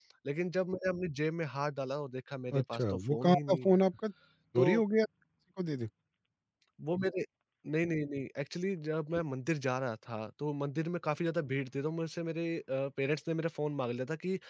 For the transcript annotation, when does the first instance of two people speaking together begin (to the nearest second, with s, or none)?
3 s